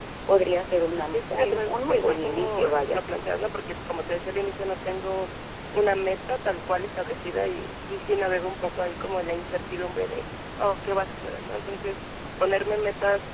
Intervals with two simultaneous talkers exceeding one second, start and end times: 1.1-3.0

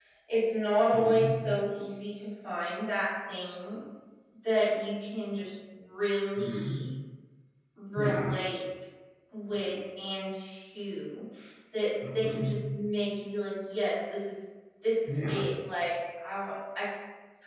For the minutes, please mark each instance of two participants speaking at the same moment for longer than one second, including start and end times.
none

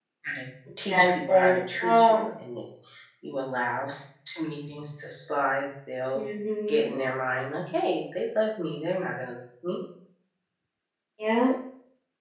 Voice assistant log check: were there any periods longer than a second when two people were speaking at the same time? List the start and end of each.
0.9-2.2

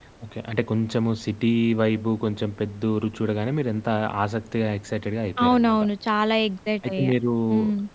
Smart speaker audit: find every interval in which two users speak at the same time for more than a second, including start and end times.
none

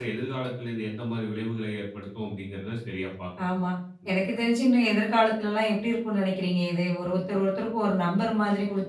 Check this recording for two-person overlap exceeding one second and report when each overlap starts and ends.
none

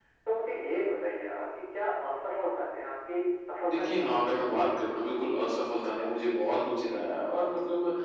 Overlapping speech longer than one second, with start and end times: 3.7-4.9

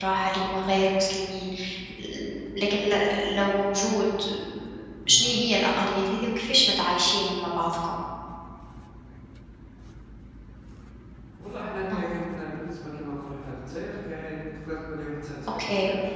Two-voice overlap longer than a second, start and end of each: none

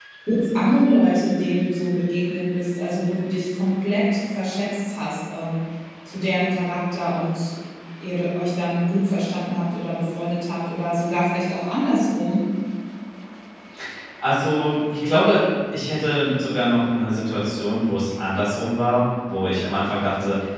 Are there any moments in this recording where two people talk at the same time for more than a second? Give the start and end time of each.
none

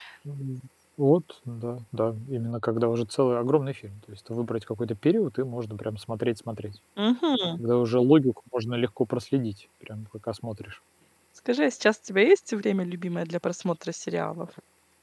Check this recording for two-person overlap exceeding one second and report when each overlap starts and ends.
none

